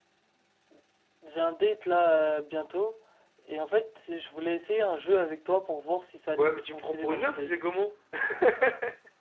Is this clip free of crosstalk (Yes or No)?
No